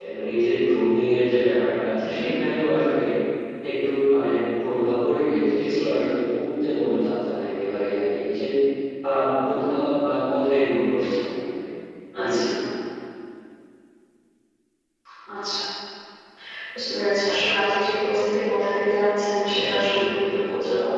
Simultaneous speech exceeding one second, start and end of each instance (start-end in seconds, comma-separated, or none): none